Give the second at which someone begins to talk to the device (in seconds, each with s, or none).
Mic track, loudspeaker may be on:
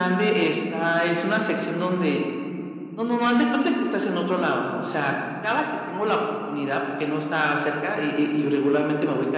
none